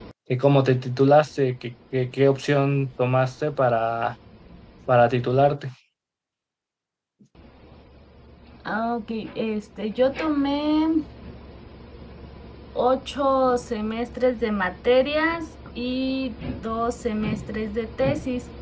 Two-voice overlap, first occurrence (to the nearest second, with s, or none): none